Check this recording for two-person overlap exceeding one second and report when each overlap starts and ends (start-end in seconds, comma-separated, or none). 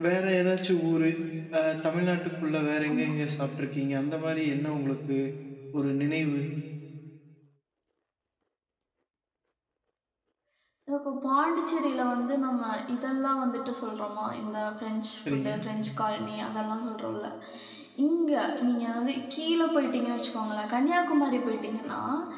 none